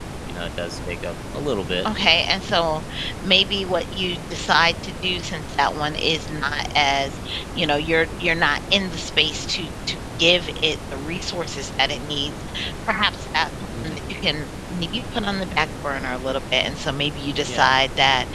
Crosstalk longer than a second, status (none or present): none